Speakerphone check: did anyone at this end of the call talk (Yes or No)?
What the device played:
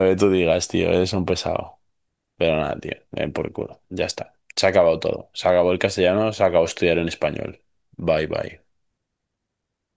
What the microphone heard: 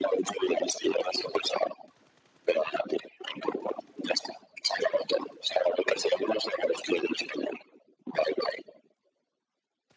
No